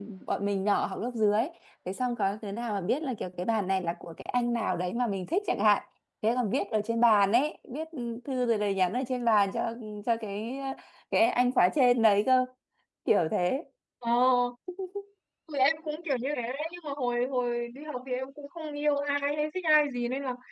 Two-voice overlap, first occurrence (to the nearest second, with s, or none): none